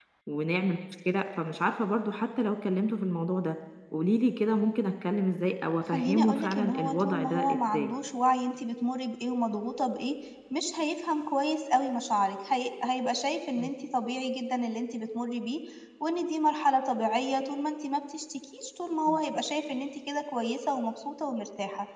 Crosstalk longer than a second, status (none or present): present